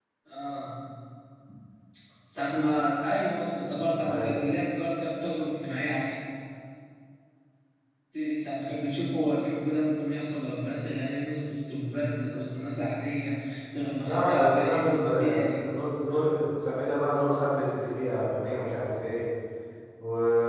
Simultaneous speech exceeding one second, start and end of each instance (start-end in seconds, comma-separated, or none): 14.0-15.6